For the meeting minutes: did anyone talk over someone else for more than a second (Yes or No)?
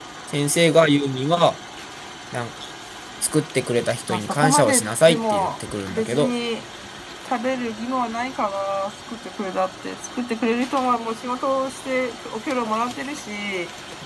Yes